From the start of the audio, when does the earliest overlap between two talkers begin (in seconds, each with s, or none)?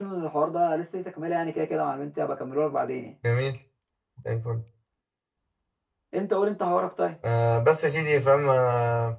none